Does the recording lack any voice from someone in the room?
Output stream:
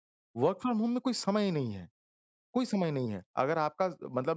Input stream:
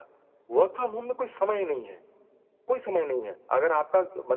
Yes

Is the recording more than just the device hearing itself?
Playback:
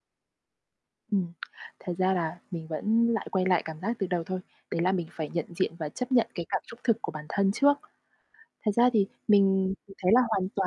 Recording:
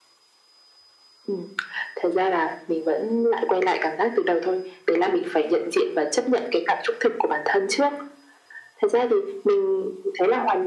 No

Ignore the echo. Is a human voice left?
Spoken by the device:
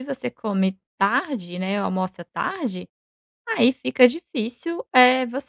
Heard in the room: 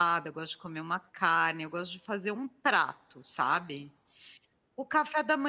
Yes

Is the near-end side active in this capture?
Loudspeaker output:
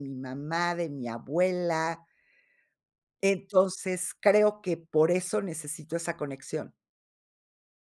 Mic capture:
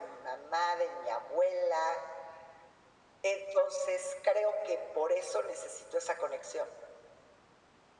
No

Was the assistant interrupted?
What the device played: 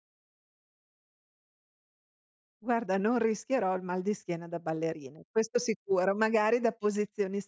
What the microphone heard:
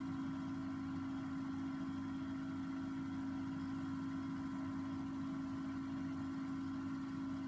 No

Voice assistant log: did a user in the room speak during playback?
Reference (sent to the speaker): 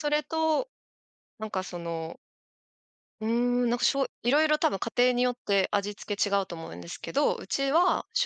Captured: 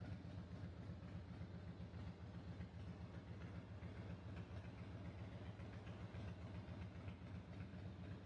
No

